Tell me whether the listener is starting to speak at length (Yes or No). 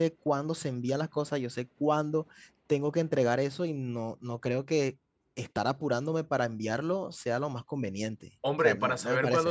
Yes